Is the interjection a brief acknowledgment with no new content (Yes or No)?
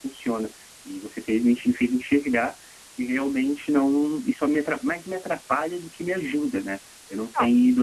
Yes